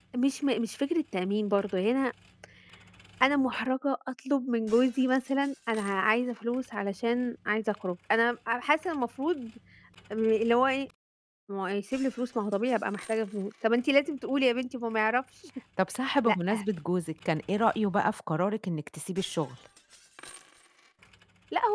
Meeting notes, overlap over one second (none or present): none